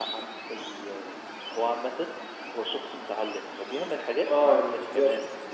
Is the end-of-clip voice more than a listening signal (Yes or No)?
Yes